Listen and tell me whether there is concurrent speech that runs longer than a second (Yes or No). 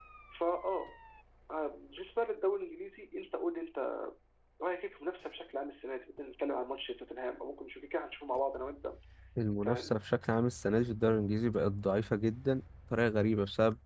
No